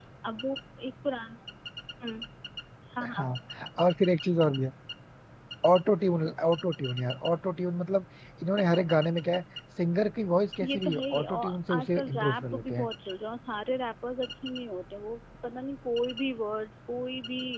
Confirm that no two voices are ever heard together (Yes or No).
No